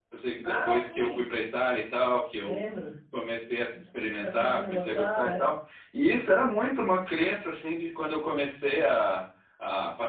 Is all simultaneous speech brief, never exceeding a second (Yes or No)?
No